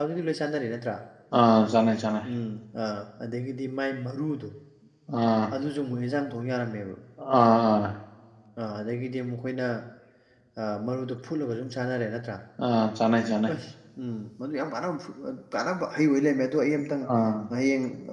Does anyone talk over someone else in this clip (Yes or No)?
No